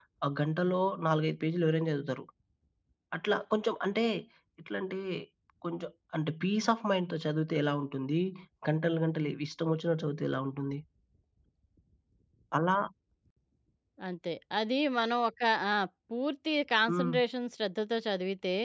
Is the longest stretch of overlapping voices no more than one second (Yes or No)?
Yes